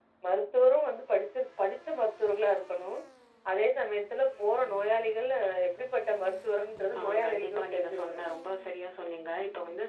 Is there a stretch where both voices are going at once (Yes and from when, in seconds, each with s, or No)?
Yes, from 6.9 s